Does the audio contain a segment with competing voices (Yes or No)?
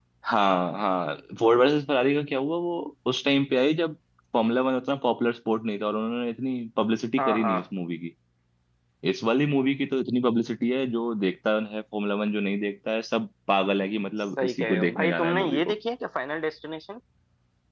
Yes